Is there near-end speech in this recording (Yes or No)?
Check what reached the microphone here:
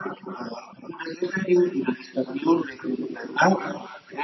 No